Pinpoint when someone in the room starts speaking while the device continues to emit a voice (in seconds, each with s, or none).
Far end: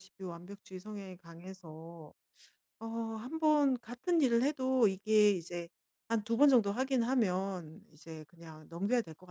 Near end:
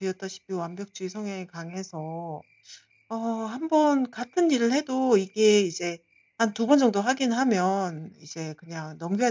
none